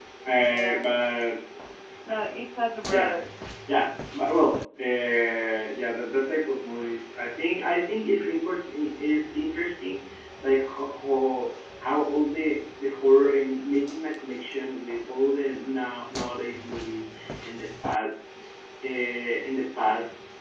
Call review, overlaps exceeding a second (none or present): none